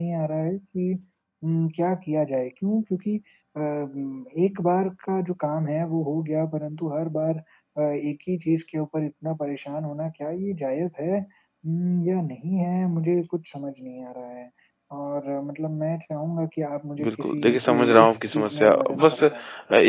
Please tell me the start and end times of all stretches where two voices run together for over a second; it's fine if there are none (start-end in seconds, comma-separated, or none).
17.0-19.2